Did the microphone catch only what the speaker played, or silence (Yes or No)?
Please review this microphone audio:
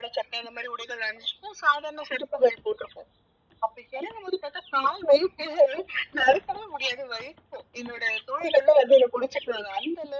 Yes